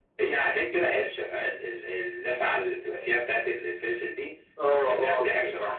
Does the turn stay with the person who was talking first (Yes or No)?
No